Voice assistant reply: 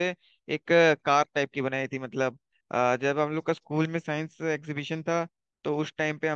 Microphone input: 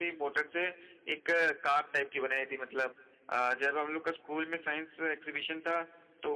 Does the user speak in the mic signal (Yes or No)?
No